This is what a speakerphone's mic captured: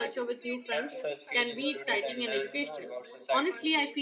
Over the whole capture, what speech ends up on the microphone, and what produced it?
both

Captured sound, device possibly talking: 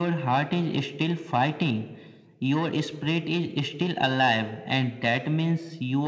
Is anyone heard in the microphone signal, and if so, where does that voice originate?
echo only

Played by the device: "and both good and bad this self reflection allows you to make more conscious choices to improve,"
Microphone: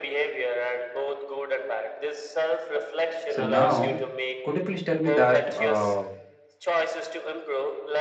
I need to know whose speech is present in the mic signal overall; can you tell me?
both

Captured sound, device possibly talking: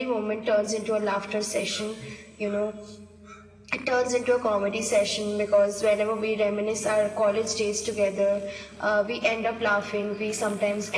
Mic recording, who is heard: echo only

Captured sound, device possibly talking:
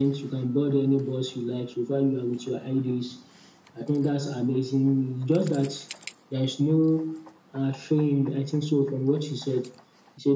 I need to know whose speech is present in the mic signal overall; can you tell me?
echo only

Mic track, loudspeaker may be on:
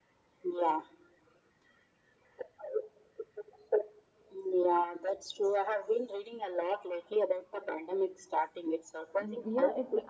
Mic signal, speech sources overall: both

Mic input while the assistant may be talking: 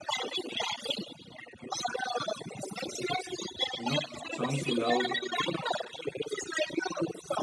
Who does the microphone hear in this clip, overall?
both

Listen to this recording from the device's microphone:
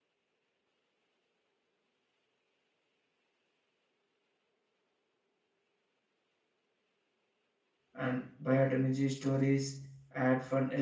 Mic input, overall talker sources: user only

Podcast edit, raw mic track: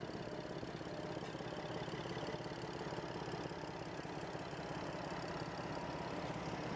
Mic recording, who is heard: neither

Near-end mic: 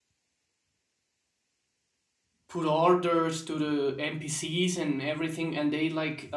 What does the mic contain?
user only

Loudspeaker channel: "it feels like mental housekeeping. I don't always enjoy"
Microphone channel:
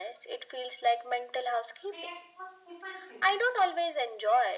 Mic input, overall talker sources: both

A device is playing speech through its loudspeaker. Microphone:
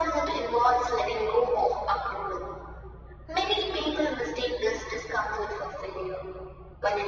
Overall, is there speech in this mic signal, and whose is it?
echo only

